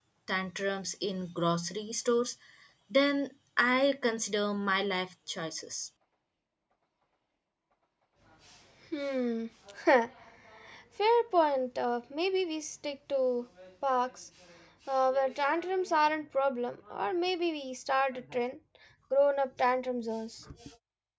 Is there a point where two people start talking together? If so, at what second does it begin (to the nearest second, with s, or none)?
none